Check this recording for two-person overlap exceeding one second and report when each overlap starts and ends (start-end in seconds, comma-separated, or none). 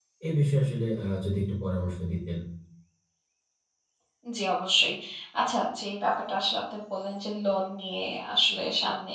none